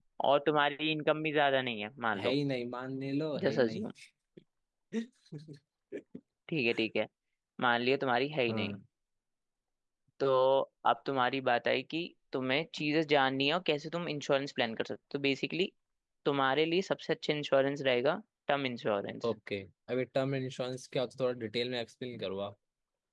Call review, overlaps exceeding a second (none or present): none